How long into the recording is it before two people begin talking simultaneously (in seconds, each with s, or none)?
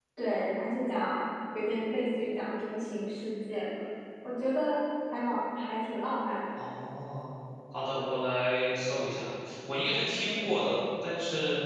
none